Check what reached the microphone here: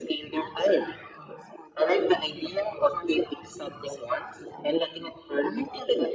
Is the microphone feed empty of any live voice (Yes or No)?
Yes